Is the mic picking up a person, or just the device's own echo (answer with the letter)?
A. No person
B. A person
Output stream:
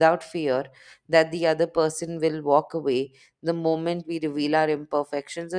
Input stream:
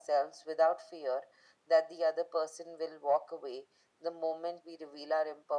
A